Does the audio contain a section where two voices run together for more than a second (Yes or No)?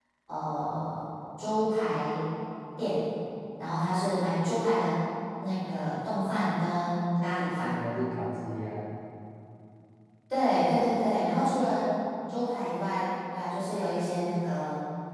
No